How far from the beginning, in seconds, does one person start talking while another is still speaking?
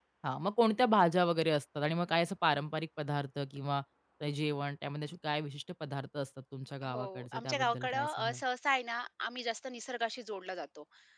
6.8 s

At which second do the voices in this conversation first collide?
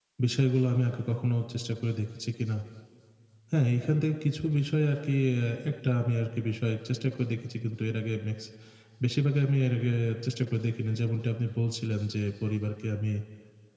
none

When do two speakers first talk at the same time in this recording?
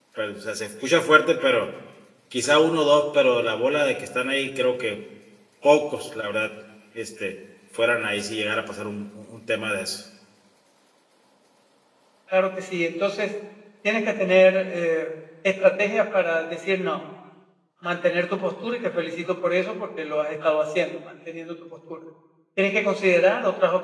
none

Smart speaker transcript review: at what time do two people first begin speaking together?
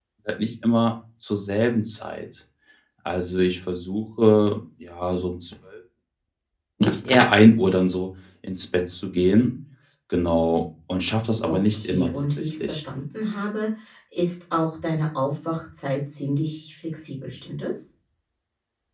11.4 s

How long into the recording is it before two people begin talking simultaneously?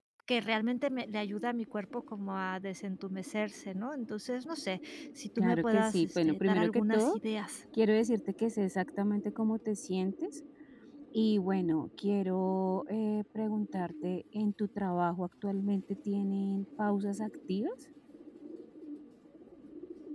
5.4 s

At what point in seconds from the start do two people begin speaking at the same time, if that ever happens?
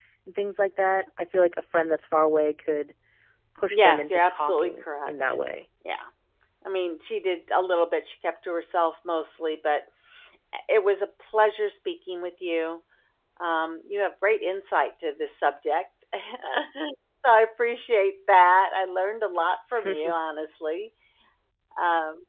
3.7 s

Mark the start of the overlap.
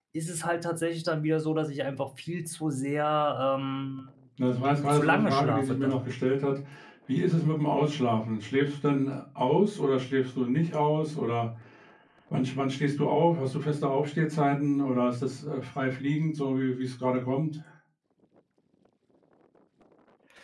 4.7 s

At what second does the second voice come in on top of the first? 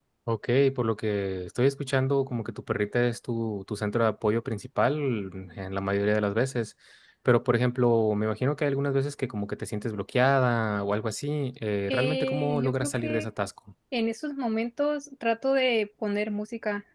11.9 s

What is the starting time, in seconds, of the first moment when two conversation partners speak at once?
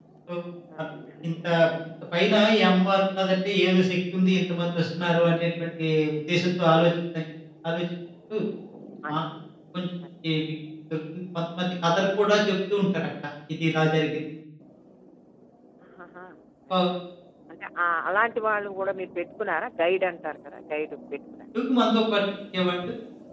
none

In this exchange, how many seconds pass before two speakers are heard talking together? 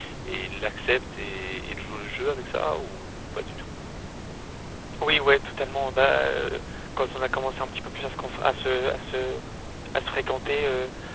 none

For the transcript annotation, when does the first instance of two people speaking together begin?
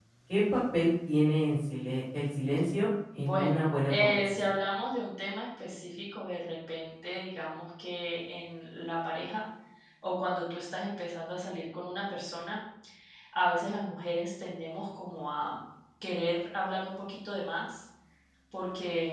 3.2 s

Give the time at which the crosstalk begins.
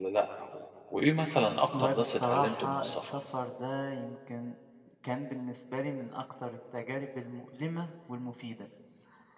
1.7 s

